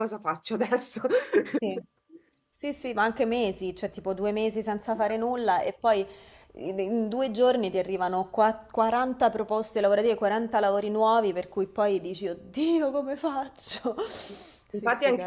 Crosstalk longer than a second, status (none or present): none